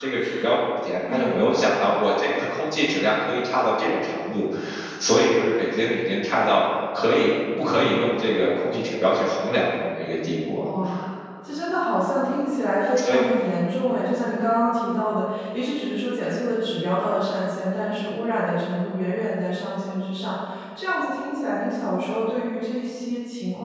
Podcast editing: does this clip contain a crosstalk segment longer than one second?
No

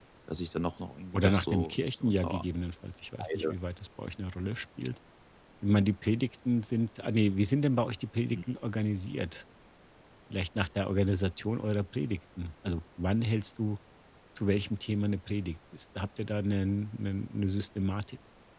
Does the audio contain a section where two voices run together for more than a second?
Yes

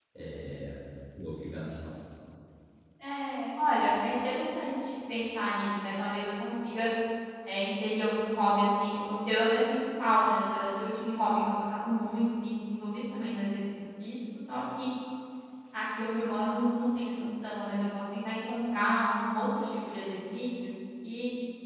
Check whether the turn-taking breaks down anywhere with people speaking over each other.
No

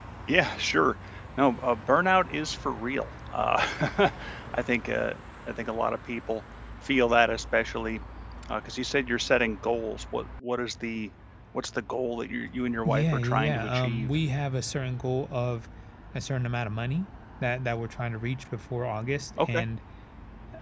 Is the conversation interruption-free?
No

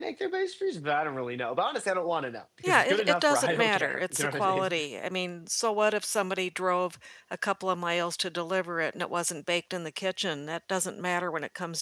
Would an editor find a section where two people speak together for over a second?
Yes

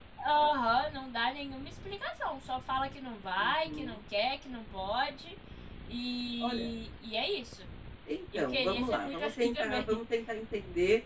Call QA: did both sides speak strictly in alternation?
No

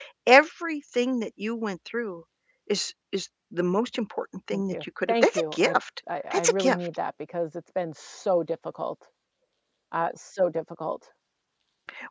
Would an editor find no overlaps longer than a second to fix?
No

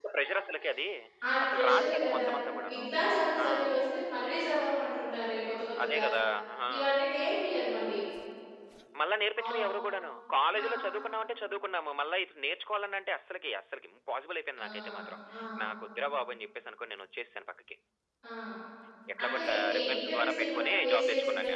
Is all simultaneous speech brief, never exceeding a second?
No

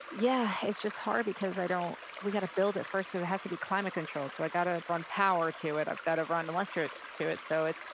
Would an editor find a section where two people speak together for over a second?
No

